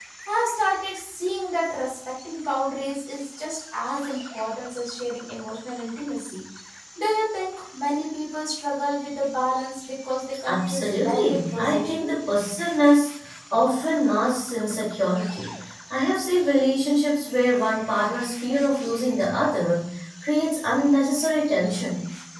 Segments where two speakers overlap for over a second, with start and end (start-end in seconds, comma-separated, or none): 10.5-12.0